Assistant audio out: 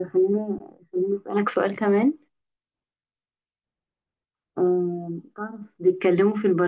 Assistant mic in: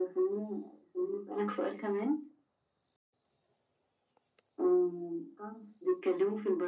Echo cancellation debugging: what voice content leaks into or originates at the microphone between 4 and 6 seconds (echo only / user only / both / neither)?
echo only